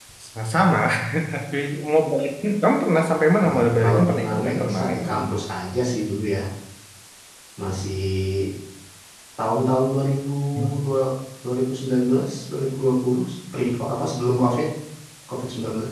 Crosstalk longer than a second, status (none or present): present